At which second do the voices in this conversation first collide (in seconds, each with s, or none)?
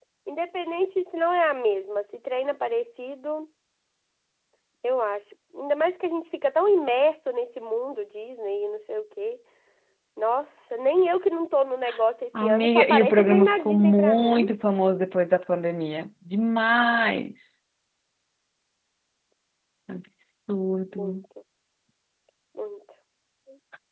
12.4 s